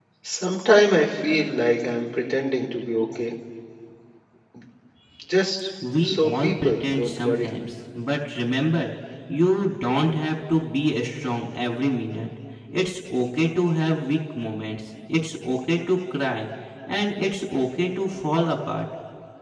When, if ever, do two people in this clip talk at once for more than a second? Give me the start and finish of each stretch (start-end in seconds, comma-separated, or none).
6.0-7.5